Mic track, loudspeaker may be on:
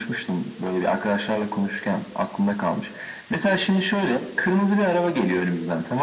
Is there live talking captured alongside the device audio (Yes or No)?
No